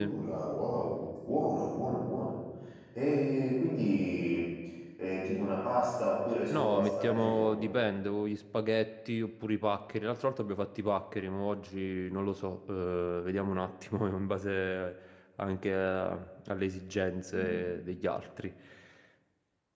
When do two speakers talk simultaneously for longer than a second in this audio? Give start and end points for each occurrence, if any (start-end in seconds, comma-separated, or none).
6.5-7.8